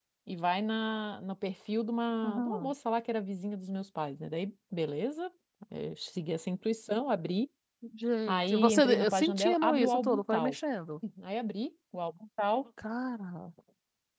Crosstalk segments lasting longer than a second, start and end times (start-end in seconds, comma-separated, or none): 8.3-10.6